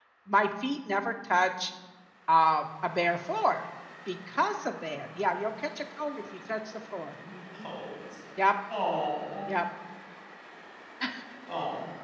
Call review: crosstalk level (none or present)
none